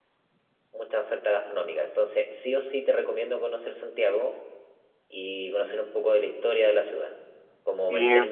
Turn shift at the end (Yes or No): No